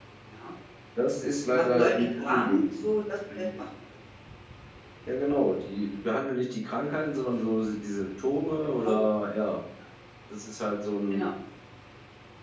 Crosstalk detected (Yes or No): Yes